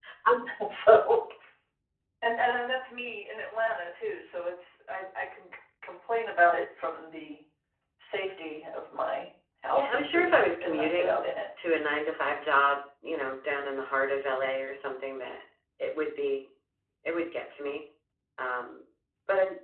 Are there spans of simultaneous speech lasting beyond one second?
Yes, from 9.7 s

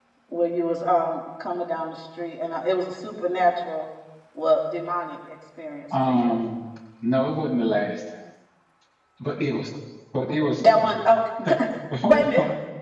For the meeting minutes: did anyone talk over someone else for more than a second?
No

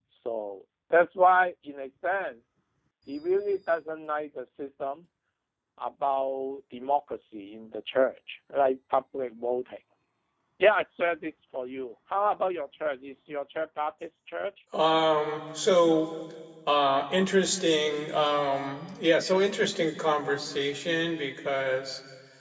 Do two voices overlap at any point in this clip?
No

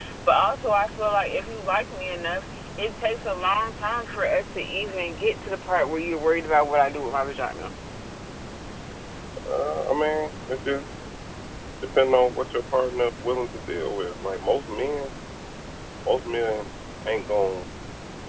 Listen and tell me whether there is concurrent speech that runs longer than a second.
No

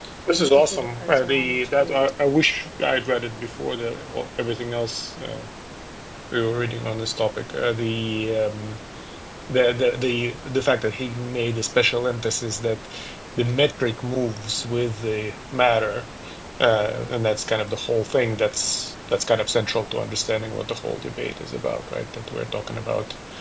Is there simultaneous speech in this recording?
Yes, from 0.5 s

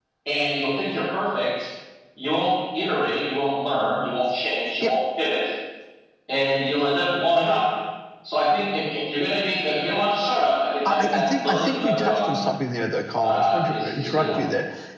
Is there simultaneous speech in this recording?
Yes, from 10.8 s

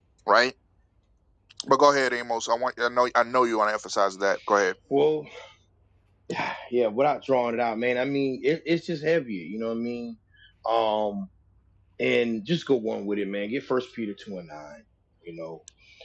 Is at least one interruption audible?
No

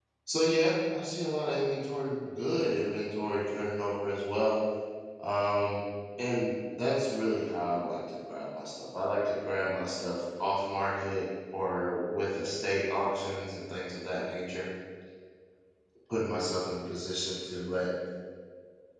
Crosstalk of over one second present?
No

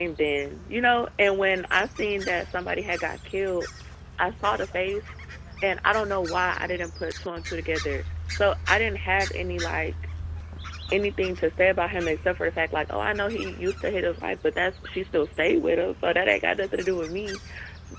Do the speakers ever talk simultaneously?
No

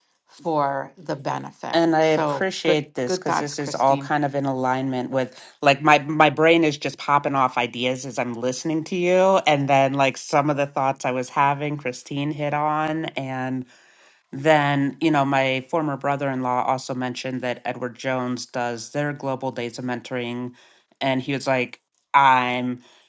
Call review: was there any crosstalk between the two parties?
Yes, from 1.7 s

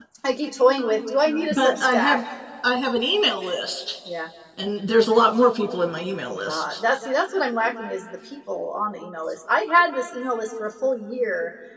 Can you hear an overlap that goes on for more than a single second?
Yes, from 0.8 s

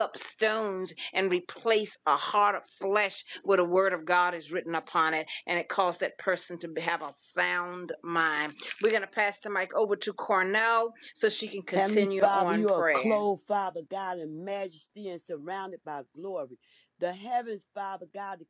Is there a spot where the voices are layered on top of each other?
Yes, from 11.7 s

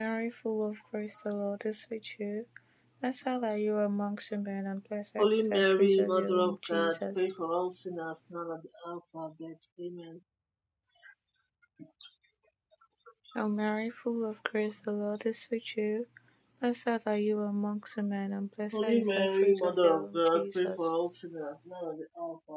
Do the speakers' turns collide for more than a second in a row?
Yes, from 5.2 s

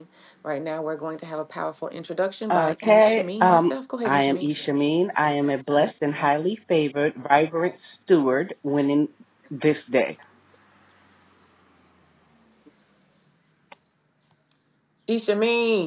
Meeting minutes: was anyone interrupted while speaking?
Yes, from 2.5 s

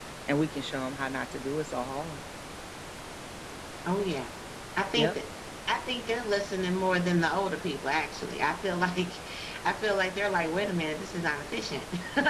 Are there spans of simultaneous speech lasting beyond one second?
No

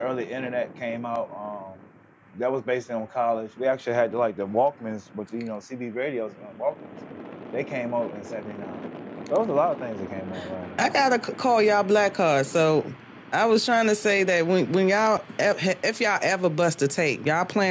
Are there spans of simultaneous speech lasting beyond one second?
No

